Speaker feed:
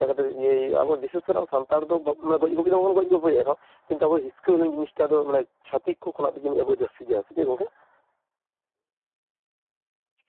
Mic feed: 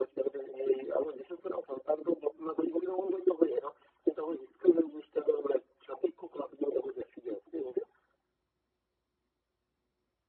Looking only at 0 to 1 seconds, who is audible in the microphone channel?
echo only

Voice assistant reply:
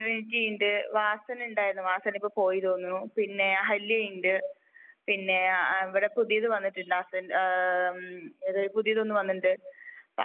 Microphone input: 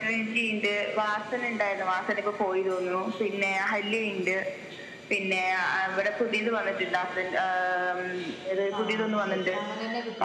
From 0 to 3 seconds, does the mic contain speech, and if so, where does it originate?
echo only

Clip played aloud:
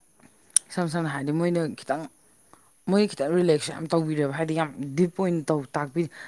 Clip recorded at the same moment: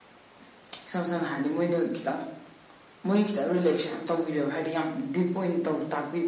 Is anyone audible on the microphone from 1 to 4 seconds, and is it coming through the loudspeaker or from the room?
echo only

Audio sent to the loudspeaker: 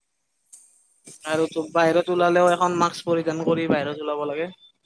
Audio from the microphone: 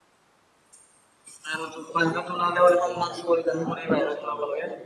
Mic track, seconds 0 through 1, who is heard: neither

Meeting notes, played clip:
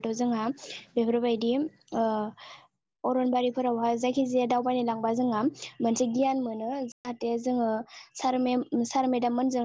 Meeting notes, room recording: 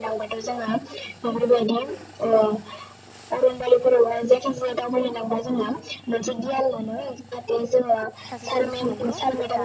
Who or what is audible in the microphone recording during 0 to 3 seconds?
echo only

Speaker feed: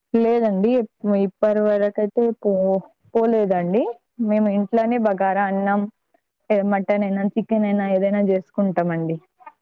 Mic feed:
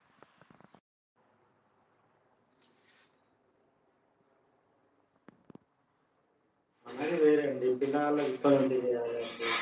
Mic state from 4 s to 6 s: neither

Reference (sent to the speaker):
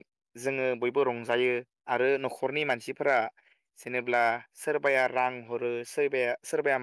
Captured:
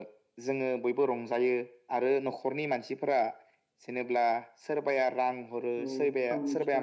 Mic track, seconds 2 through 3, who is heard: echo only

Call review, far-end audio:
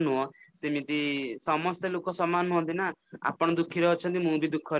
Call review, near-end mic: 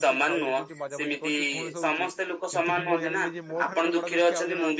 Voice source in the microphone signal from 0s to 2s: both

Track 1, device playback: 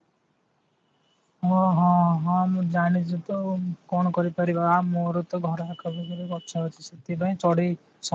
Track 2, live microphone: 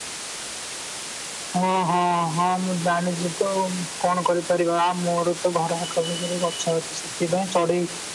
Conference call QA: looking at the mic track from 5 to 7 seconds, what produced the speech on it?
echo only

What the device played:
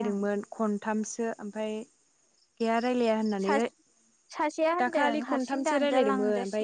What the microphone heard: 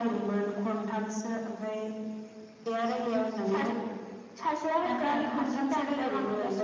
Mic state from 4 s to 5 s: echo only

